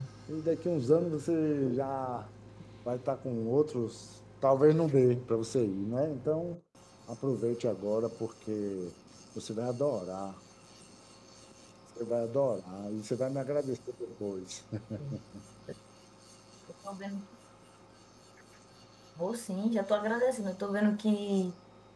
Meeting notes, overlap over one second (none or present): none